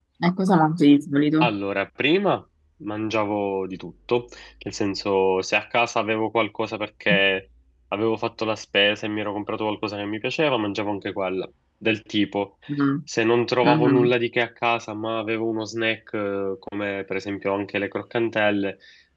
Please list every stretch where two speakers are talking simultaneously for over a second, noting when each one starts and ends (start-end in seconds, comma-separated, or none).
none